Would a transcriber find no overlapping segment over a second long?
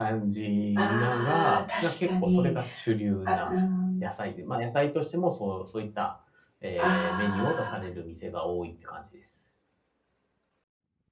No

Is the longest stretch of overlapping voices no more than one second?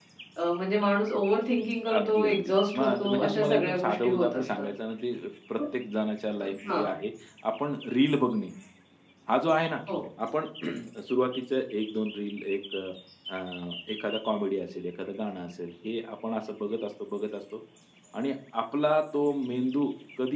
No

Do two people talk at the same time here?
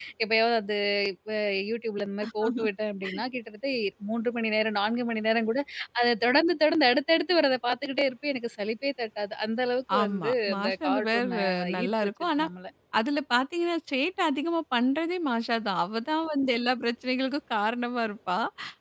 Yes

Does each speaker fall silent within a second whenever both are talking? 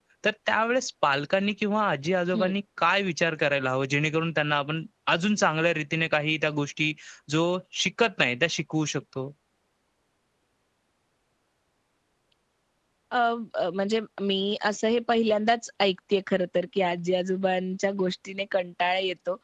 Yes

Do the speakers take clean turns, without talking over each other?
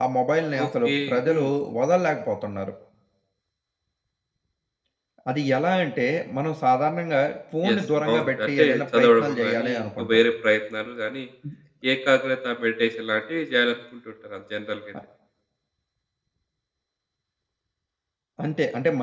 No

